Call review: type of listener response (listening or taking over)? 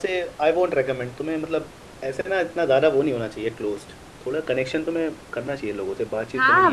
taking over